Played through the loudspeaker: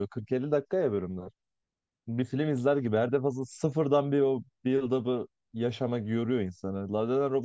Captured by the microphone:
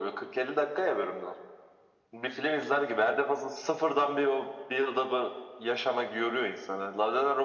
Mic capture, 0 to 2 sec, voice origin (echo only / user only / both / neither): echo only